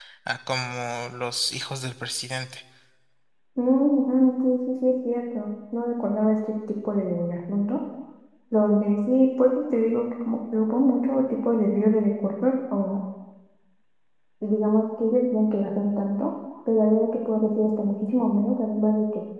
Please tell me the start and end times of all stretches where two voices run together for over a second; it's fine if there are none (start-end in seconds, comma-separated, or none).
none